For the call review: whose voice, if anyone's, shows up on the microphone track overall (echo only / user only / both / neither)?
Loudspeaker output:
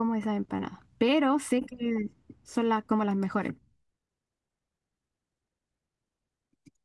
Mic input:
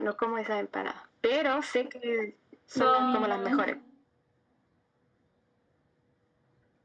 both